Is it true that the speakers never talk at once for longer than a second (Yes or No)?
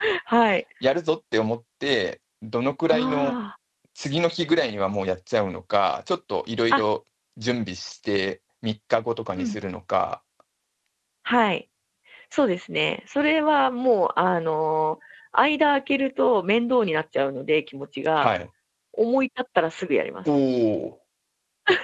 Yes